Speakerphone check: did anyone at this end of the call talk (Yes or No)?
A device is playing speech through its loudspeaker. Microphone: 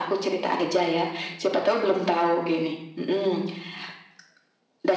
No